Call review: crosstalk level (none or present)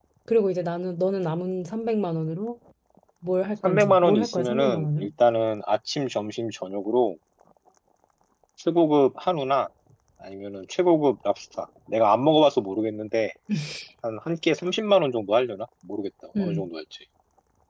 present